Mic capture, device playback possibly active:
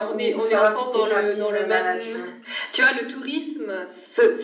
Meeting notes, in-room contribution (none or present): present